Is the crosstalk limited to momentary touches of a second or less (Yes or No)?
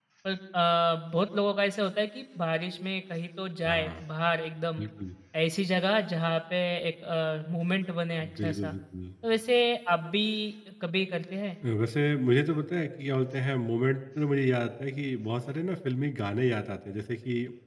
Yes